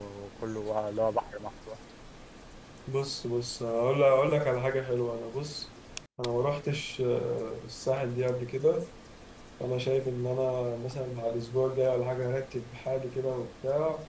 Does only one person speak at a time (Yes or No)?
Yes